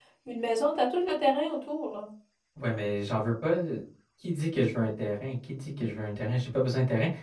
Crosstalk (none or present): none